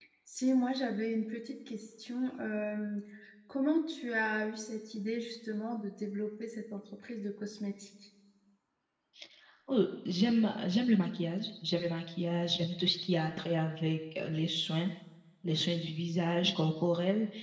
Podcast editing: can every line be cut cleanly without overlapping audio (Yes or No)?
Yes